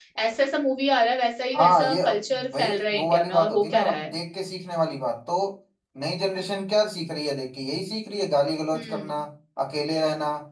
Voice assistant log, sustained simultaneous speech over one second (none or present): present